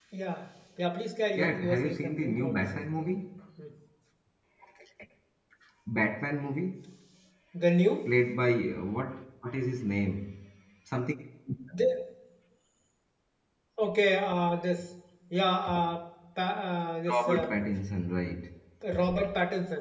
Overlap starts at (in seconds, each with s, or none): 1.4 s